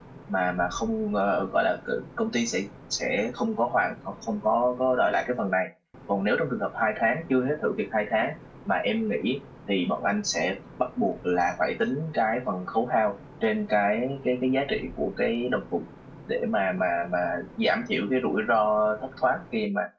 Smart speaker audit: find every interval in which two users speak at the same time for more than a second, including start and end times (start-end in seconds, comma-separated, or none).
none